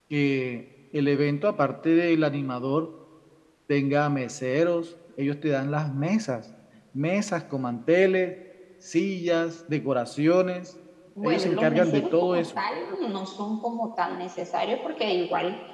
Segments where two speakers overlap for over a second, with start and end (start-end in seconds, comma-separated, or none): 11.2-12.6